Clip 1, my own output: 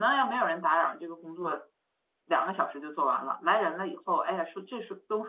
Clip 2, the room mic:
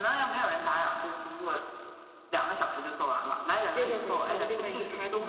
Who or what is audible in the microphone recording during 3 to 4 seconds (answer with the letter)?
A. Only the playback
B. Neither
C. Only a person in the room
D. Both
D